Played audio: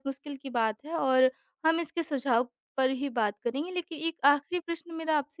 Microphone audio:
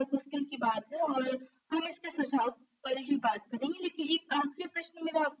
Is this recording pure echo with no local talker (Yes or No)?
Yes